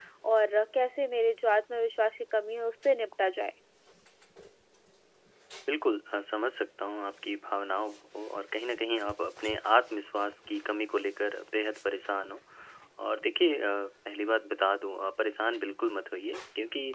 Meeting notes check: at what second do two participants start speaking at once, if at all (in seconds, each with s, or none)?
none